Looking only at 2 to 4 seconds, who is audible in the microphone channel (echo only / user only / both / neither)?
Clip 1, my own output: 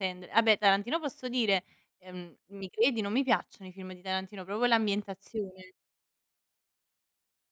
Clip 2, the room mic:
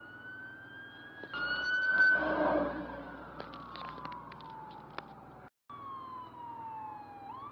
neither